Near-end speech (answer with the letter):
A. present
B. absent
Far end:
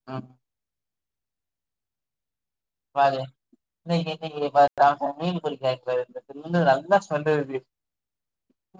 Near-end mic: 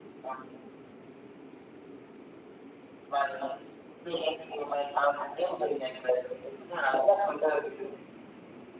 B